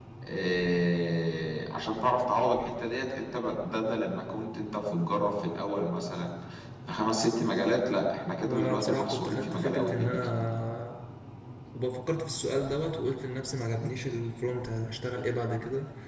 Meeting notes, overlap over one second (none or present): present